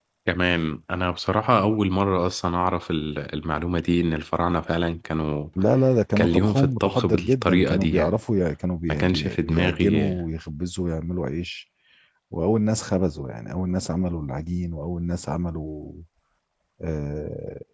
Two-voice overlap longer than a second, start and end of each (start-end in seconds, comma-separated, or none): 6.2-8.2, 8.9-10.1